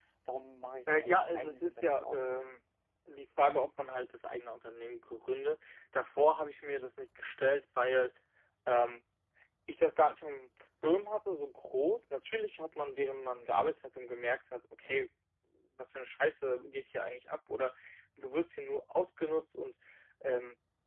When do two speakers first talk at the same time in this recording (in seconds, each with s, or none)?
0.9 s